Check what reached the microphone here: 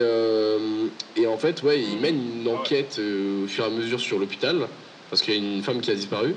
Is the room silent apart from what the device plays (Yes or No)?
No